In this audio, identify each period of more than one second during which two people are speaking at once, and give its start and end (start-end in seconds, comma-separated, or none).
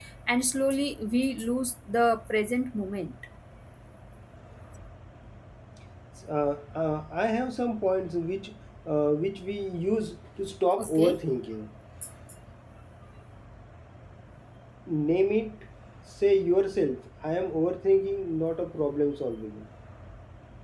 none